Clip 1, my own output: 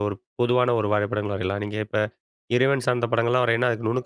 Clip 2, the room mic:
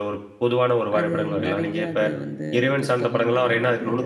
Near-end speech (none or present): present